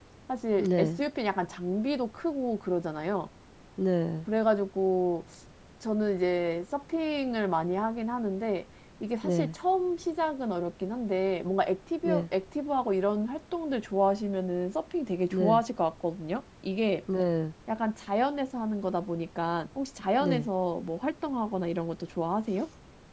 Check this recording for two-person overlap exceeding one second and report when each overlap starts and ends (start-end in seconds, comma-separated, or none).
none